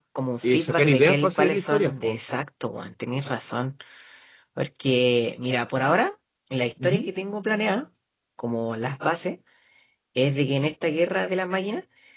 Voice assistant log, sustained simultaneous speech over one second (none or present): present